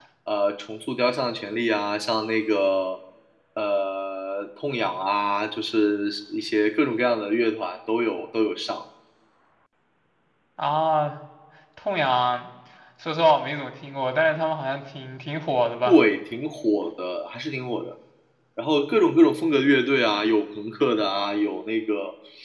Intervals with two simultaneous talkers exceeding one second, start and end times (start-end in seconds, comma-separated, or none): none